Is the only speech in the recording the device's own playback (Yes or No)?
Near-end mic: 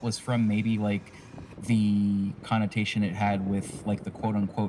Yes